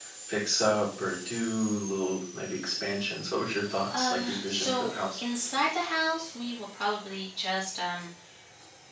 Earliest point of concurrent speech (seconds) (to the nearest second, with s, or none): 4 s